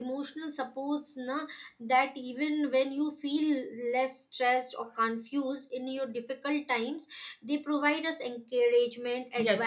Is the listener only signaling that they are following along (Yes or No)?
No